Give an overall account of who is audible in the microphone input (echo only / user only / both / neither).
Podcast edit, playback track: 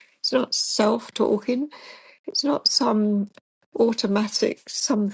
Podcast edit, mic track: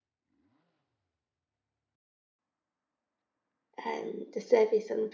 user only